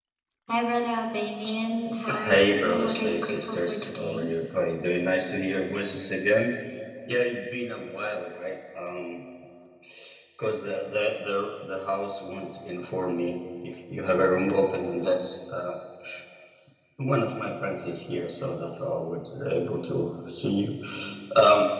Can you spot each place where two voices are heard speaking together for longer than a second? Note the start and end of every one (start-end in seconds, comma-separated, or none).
2.1-4.3